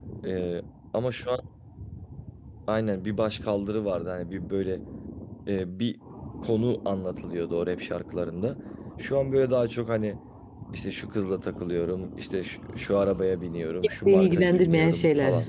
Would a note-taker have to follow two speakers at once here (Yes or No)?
Yes